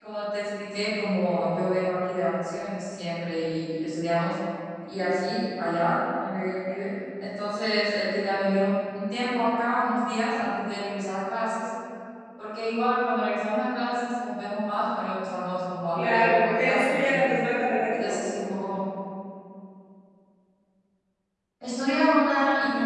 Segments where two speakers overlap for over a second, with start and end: 15.9-17.3

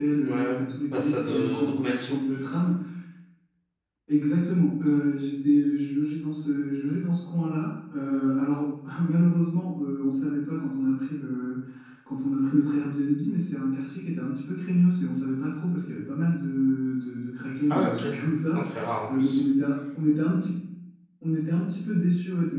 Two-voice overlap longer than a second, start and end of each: 0.9-2.2

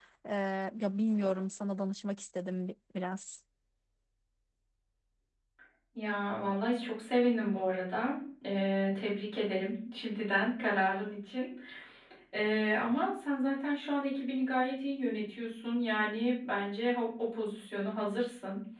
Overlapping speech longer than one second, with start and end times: none

